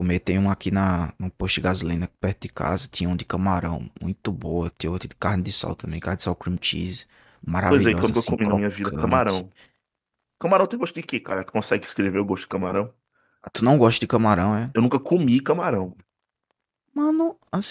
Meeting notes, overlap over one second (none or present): present